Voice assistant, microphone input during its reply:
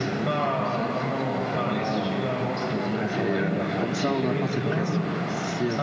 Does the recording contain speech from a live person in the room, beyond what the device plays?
Yes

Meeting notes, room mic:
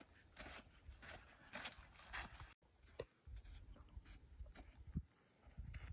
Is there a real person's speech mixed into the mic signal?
No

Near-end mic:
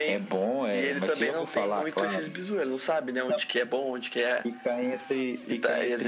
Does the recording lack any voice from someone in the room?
Yes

